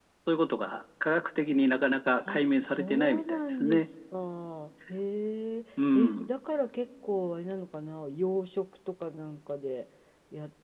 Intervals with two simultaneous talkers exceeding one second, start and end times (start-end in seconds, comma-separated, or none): 2.3-3.9